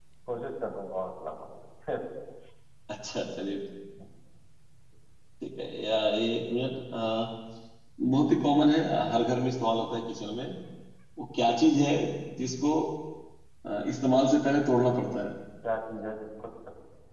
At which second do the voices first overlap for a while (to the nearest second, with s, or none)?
none